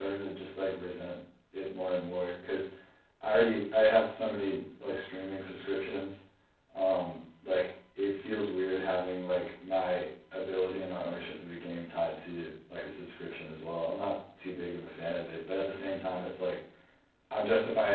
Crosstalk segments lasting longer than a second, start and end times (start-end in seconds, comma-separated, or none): none